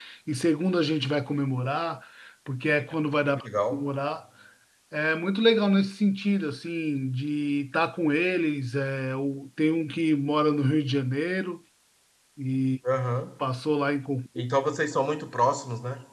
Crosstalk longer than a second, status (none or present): none